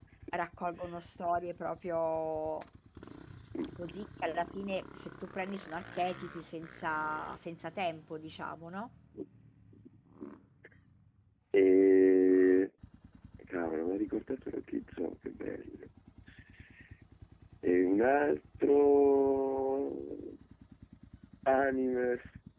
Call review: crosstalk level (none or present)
none